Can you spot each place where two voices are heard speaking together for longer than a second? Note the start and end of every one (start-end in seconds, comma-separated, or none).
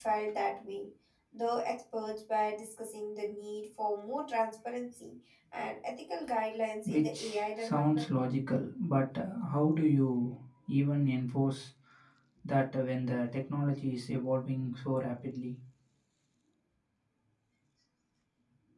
6.8-8.1